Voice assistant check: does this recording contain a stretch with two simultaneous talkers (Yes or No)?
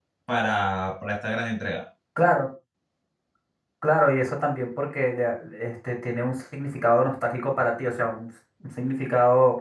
No